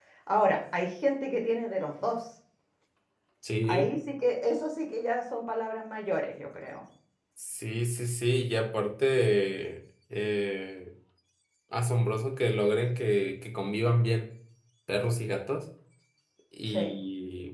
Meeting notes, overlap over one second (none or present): none